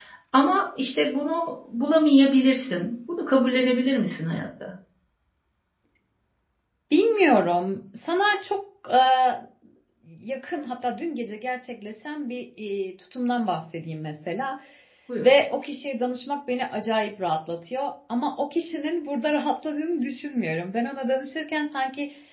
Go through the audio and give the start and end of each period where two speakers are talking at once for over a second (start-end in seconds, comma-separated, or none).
none